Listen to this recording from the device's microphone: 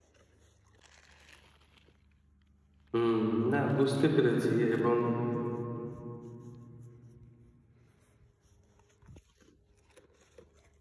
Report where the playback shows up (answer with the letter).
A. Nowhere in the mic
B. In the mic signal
A